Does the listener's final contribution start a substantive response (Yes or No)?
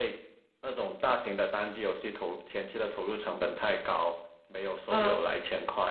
No